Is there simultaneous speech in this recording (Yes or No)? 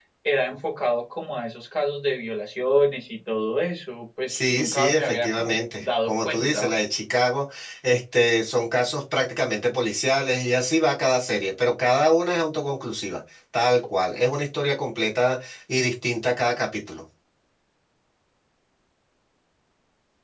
Yes